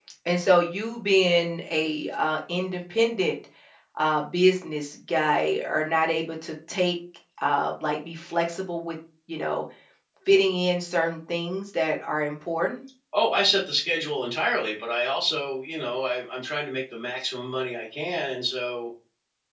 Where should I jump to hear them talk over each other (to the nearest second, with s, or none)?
none